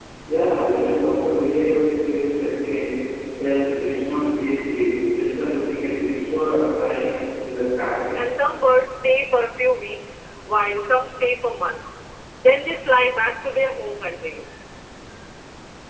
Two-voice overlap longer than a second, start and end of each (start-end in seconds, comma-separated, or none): none